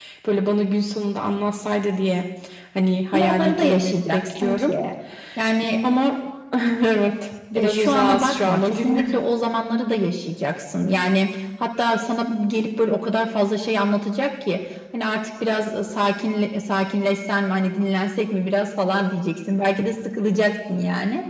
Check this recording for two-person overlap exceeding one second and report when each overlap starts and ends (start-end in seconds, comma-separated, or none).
3.1-4.7, 7.5-9.2